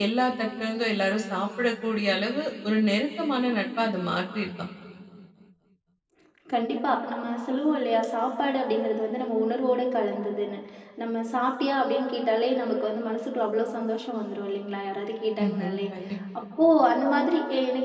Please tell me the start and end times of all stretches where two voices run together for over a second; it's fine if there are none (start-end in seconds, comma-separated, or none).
none